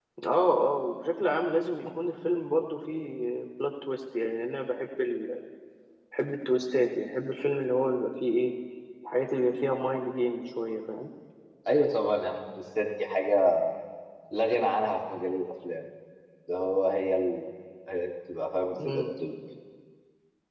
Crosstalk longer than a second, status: none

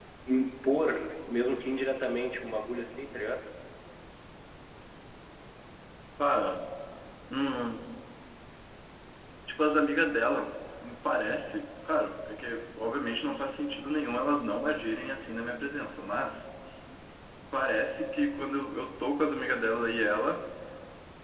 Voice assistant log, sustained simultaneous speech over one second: none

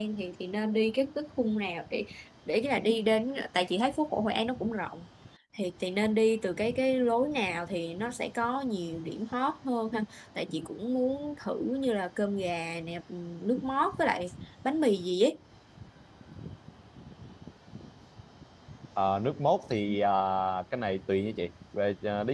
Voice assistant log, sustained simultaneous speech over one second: none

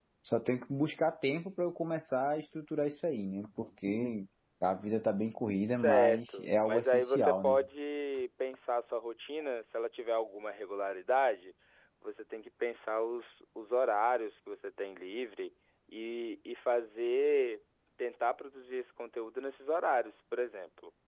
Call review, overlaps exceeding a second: present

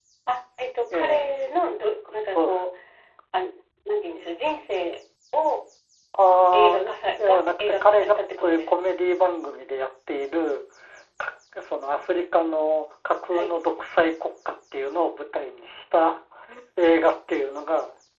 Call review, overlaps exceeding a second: present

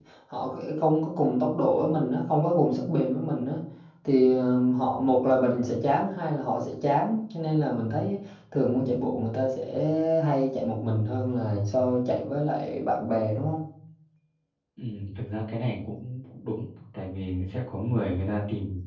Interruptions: none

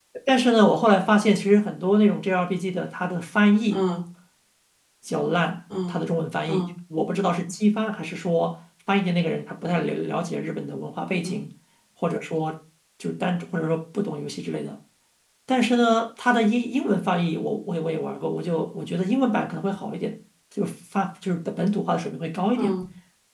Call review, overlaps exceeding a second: none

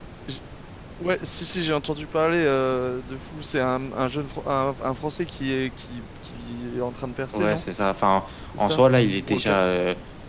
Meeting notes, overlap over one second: none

